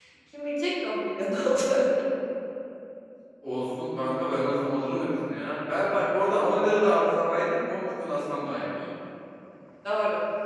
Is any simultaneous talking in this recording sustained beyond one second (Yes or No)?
No